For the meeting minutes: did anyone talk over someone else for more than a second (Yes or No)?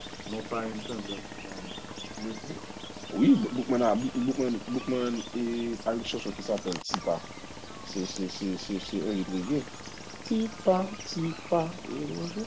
No